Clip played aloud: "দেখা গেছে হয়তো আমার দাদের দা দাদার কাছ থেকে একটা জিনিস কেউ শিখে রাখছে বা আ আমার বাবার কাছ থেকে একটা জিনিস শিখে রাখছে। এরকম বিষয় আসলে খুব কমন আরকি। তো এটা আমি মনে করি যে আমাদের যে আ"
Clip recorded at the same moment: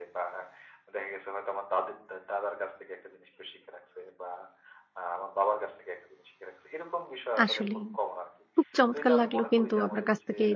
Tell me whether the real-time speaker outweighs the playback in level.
Yes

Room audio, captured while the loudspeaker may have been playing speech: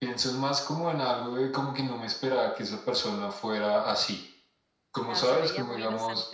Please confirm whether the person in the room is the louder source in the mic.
No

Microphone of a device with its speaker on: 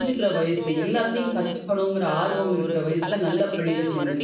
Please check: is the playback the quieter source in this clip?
Yes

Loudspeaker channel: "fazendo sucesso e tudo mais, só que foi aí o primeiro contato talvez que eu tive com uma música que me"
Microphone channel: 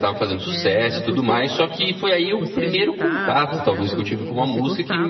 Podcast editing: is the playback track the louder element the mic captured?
Yes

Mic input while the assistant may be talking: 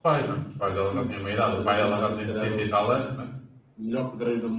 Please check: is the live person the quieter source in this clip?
No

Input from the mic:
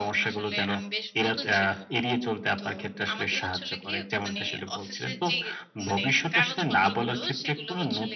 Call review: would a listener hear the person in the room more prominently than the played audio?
No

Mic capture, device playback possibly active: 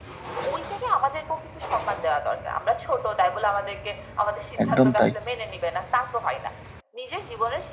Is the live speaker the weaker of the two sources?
No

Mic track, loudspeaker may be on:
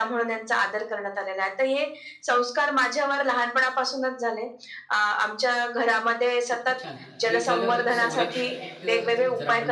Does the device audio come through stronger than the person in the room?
Yes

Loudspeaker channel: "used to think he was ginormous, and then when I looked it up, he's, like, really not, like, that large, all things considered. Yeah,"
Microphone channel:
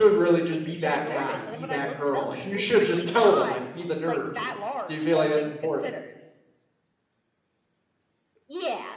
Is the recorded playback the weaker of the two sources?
Yes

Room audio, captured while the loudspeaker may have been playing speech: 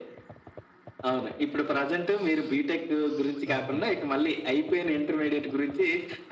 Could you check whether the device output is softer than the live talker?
No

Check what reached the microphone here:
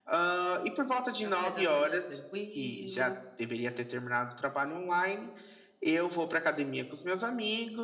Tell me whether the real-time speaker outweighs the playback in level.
No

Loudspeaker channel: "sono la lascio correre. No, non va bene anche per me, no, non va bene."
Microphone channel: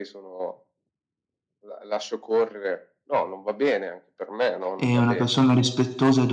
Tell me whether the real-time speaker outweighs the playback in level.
Yes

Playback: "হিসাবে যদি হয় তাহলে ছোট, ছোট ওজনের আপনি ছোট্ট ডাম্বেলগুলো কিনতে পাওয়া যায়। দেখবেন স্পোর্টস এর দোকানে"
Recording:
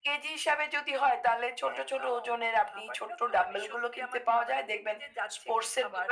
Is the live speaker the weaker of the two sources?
Yes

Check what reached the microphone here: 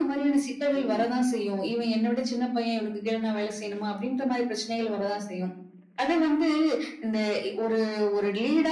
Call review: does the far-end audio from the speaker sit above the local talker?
Yes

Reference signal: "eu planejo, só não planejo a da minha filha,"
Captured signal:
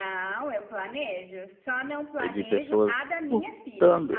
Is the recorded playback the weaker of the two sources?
Yes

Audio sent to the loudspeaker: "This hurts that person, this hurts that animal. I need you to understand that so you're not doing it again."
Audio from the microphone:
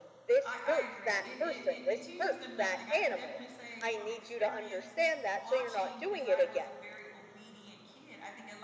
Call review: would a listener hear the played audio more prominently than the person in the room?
Yes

